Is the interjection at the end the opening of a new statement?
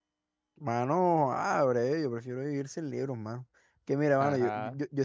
No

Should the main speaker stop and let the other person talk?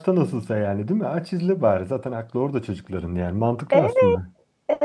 Yes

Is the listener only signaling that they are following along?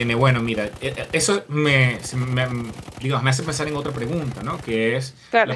Yes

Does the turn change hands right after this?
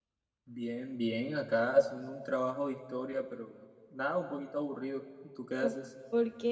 Yes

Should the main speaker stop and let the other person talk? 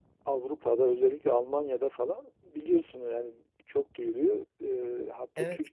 No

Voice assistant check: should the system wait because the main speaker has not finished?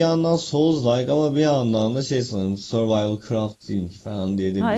No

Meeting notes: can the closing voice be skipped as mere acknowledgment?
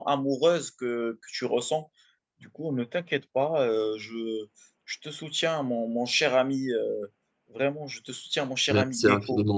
No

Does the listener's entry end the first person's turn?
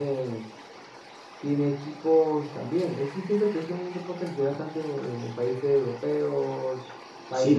Yes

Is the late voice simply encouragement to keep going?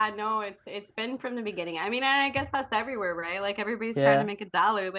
Yes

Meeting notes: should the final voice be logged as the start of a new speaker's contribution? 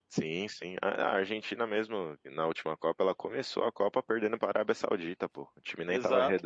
Yes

